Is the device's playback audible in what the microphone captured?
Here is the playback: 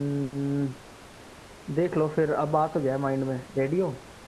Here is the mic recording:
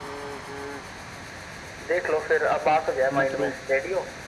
Yes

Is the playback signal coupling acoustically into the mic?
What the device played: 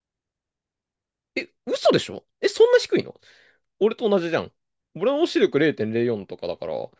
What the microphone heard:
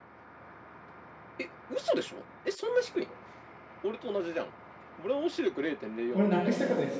Yes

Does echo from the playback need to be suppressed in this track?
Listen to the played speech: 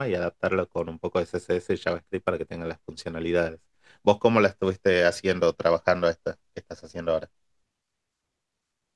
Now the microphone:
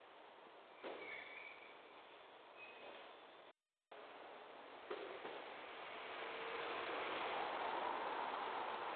No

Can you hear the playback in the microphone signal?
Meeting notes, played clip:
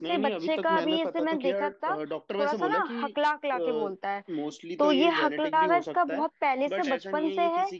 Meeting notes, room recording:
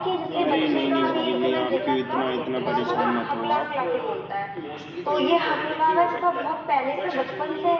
Yes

